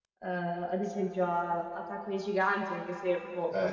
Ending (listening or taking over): taking over